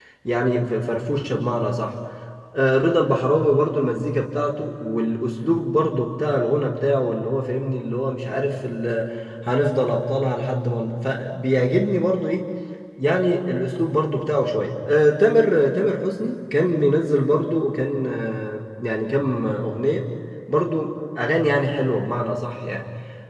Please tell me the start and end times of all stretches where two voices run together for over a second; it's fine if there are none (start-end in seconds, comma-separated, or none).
none